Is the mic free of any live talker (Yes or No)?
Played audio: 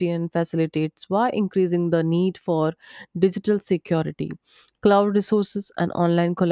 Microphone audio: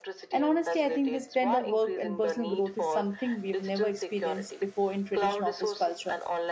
No